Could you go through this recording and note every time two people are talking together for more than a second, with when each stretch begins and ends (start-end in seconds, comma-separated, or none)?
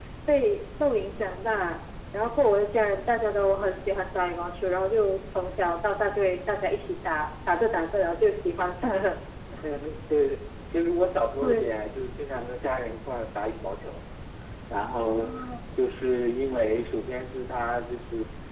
none